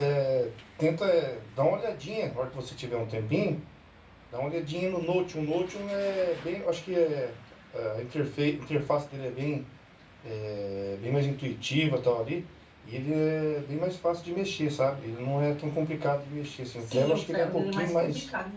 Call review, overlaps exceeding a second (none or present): present